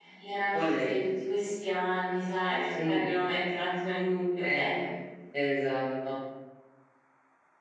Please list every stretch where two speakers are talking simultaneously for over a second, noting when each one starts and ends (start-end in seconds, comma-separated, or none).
none